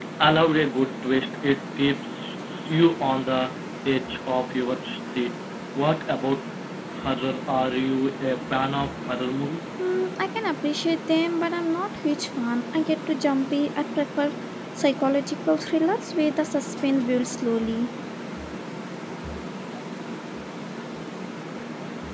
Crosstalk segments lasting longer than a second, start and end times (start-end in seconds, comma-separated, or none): none